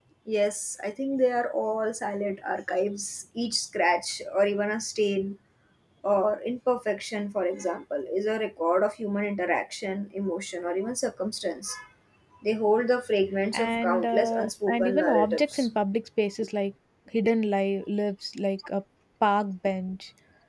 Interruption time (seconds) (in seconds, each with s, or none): 13.5 s